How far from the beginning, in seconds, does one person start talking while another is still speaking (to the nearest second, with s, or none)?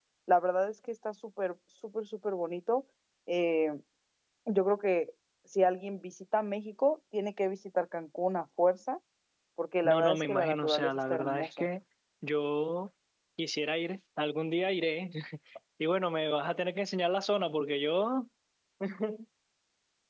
10 s